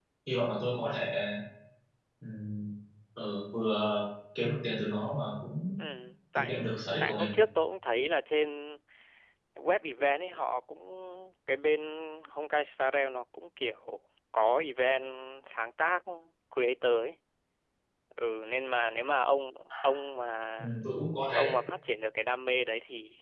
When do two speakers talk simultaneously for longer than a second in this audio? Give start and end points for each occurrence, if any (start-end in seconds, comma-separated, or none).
none